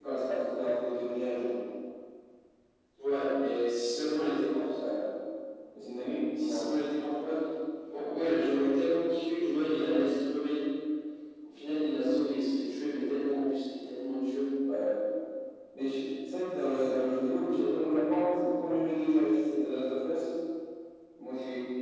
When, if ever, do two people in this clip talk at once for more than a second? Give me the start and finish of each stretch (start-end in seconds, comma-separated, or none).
none